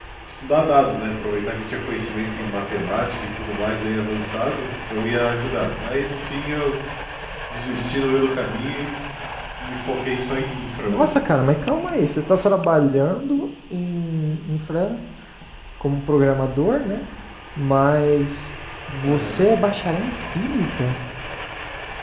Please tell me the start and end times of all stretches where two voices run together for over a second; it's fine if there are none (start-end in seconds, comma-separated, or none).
none